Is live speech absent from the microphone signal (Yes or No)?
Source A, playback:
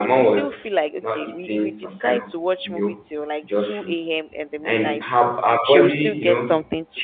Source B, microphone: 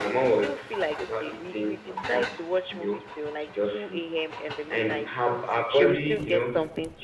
Yes